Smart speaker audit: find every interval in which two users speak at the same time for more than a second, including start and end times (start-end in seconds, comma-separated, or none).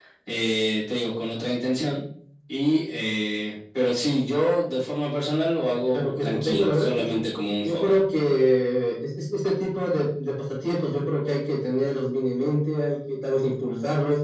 5.9-7.2